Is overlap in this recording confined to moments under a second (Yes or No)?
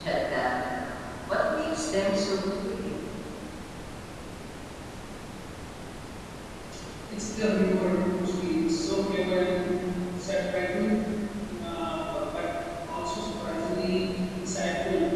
Yes